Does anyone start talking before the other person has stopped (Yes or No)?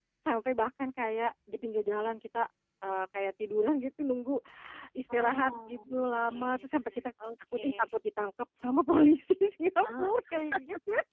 Yes